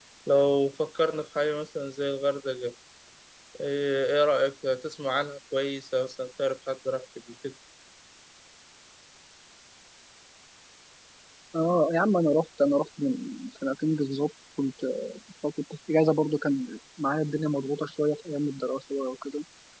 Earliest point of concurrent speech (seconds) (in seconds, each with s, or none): none